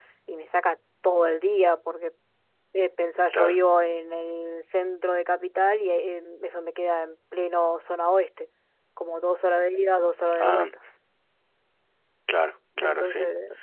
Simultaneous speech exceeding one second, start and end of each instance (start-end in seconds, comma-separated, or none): none